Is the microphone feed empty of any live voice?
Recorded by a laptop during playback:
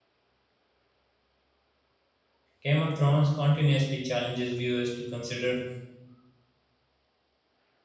No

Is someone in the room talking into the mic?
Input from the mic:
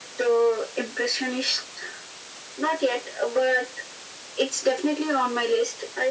No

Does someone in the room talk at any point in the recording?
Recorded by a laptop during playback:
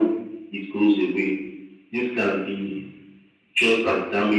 No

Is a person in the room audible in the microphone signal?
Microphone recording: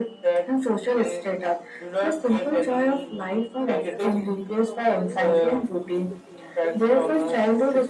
Yes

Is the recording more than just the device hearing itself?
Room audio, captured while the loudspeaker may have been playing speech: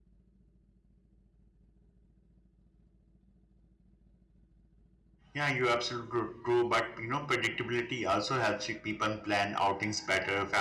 Yes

